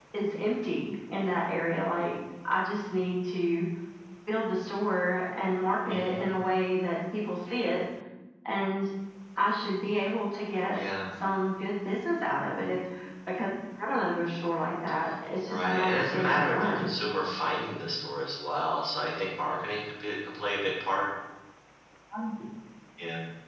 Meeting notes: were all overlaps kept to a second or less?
No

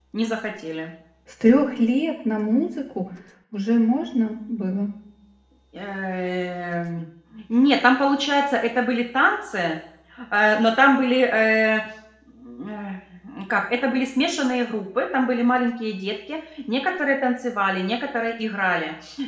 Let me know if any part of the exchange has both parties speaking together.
No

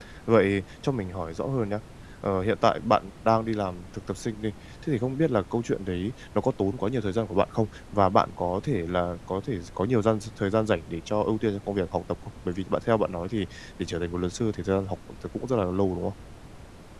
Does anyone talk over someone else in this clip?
No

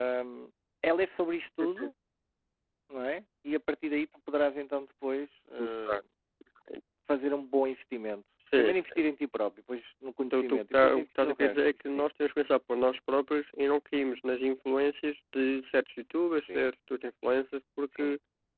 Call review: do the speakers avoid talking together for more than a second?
No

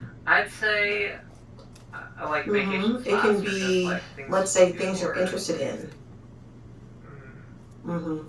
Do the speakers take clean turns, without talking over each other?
No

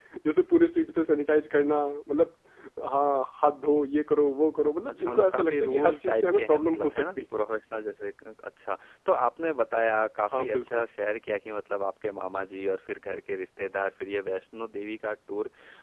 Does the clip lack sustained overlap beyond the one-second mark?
No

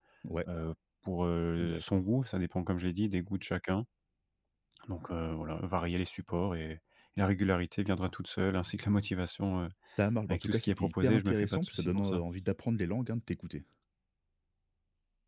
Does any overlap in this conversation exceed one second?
Yes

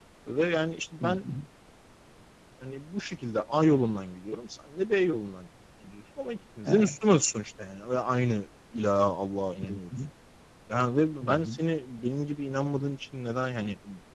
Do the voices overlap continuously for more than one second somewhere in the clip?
No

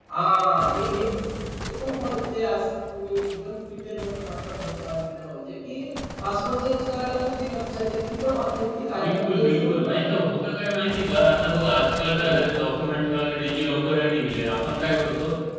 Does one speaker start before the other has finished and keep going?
Yes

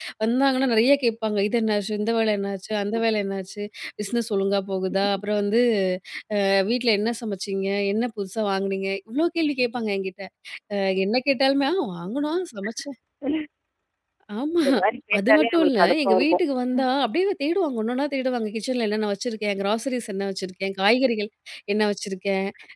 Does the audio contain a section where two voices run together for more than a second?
Yes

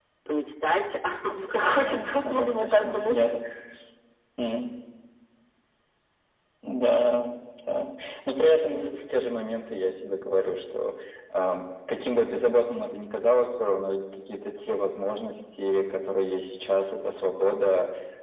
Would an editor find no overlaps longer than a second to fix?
No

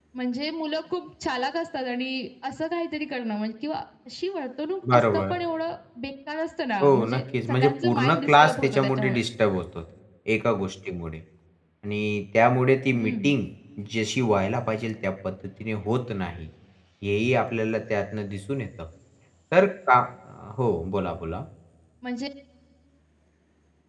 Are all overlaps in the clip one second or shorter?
No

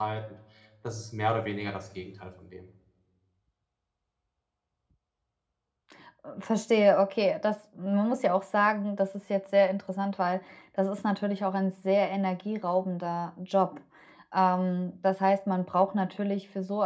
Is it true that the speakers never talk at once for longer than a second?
Yes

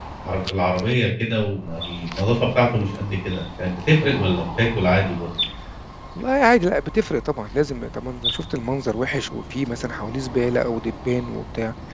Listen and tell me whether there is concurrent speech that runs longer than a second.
No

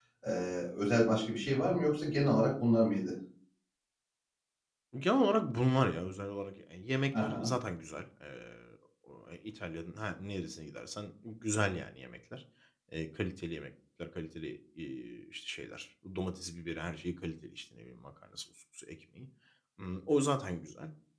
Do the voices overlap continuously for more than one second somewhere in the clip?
No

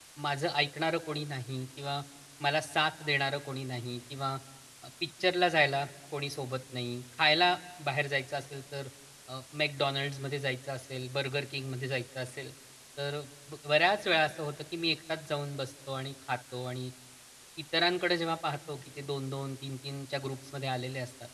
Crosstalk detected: No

